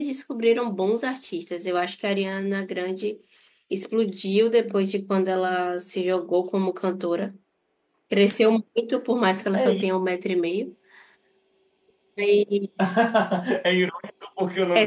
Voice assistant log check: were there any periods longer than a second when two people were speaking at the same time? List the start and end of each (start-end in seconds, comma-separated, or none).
none